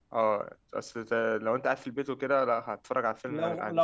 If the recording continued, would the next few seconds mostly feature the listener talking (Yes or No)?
Yes